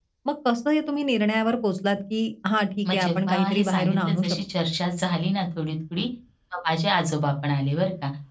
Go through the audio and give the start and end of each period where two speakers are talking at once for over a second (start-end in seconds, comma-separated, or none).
2.9-4.4